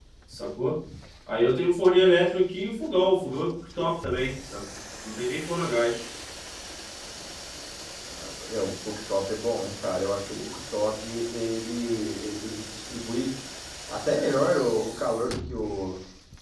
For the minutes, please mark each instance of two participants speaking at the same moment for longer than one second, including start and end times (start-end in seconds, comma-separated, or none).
none